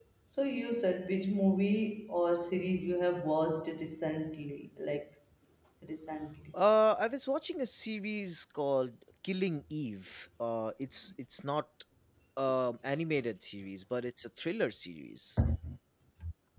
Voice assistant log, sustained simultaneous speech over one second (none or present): none